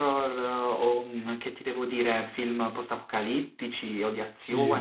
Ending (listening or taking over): taking over